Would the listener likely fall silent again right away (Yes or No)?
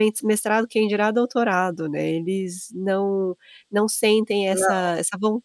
Yes